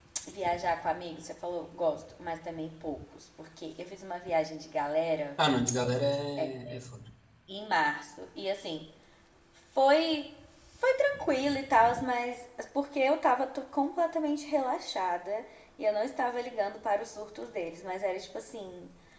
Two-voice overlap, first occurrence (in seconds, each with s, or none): none